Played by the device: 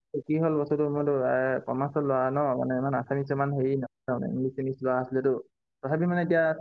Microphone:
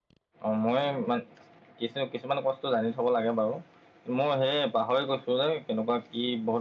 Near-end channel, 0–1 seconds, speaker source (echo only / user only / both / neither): user only